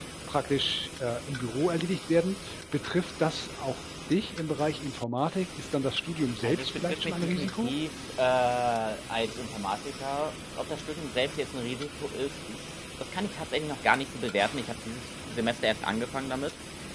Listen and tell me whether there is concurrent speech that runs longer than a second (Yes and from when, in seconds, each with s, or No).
Yes, from 6.4 s